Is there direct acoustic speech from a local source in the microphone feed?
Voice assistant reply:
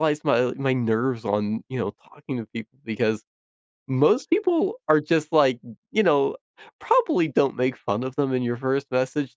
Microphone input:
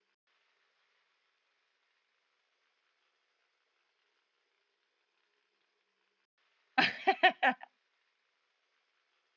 Yes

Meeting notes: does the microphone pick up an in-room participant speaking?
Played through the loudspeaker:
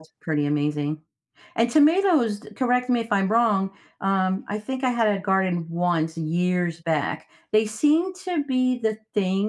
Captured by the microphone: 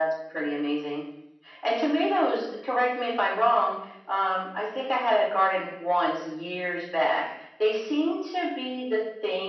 No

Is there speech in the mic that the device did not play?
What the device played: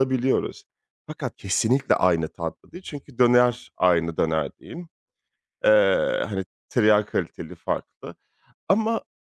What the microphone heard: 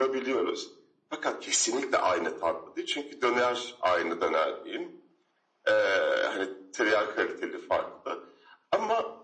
No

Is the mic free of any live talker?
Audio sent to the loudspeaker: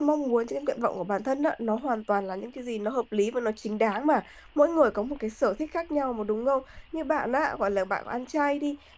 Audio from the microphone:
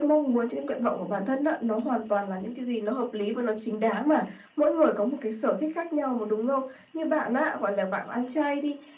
Yes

